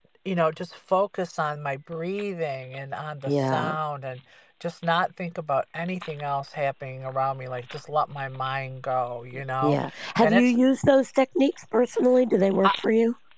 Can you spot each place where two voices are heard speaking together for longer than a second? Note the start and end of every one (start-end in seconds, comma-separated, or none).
none